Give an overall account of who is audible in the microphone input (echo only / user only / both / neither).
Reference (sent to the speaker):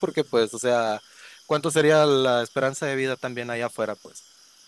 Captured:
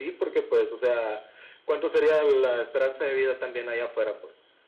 echo only